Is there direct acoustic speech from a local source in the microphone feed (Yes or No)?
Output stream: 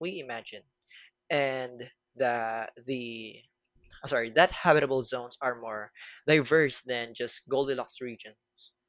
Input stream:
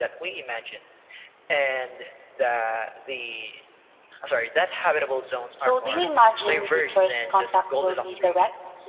Yes